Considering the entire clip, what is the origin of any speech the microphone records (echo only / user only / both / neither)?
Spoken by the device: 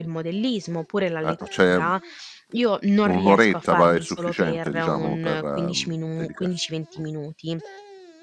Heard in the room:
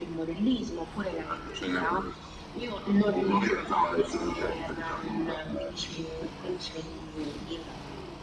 echo only